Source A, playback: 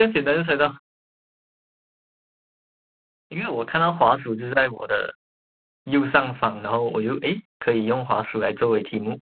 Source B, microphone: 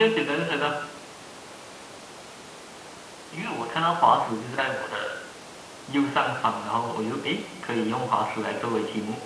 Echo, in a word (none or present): present